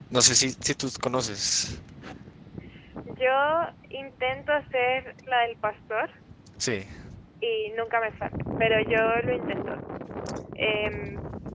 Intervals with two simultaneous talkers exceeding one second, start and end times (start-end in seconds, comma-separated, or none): none